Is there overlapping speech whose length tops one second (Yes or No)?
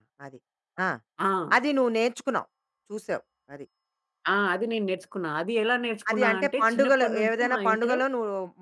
Yes